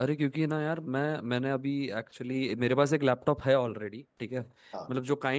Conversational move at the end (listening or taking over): listening